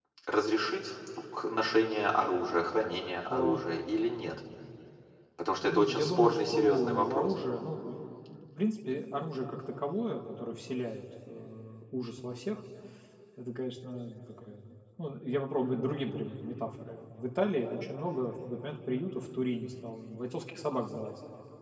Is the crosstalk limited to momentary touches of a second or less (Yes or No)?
No